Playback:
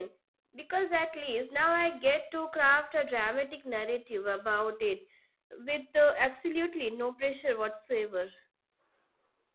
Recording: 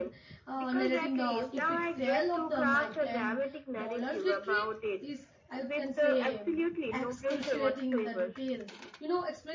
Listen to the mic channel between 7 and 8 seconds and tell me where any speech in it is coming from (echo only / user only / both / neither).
both